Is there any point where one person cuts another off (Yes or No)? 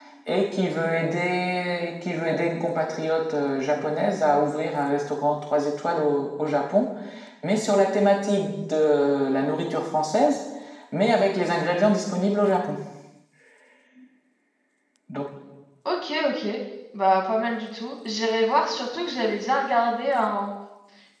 No